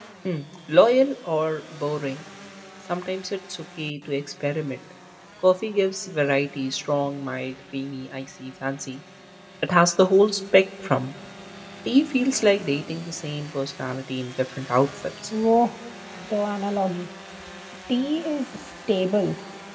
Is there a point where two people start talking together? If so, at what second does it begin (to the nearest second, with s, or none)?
none